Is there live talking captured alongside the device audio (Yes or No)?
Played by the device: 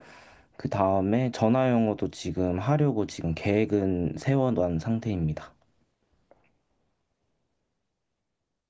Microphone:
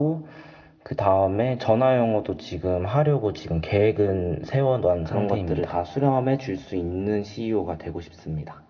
Yes